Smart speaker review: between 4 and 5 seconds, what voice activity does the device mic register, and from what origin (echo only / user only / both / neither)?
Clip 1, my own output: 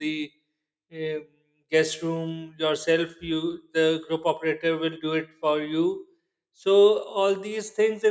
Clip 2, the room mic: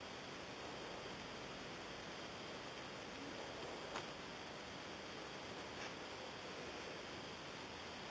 neither